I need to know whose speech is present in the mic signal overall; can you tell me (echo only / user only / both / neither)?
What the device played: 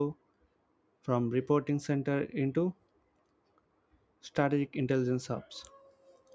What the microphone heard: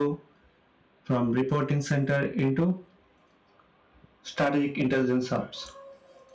echo only